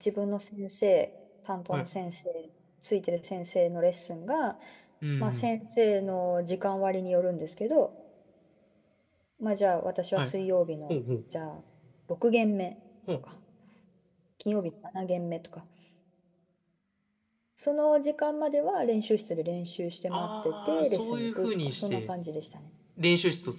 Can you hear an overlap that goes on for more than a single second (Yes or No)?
Yes